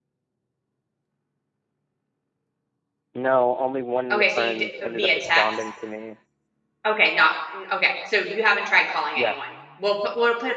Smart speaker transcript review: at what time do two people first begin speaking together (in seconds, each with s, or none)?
4.1 s